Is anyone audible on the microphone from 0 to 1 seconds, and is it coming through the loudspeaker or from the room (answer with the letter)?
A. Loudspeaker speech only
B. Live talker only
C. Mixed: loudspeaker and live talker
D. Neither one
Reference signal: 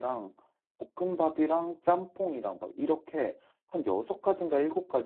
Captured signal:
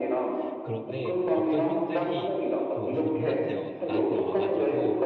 C